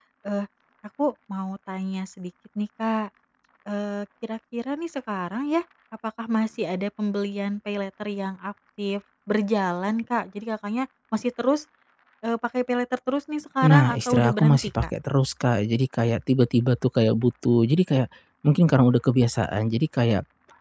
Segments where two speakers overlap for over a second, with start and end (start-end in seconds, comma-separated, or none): 13.6-14.9